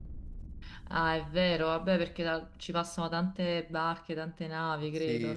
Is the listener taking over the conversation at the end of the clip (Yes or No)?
Yes